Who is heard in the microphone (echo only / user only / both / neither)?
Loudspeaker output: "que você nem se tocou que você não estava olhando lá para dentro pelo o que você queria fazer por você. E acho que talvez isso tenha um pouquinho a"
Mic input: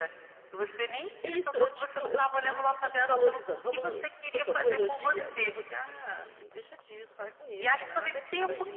both